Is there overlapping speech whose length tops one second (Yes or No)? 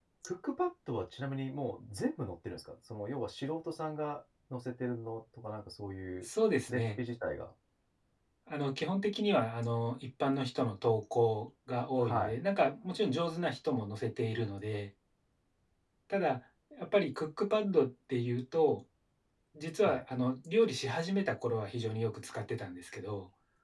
No